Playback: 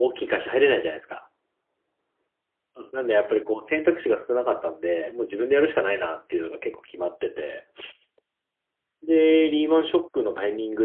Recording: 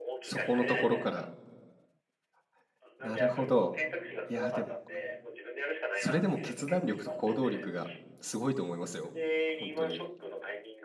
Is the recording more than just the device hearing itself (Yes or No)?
Yes